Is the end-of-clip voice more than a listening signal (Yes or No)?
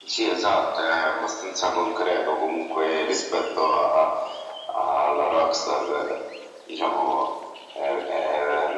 No